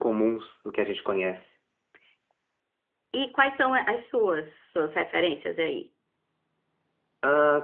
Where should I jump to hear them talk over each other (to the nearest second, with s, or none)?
none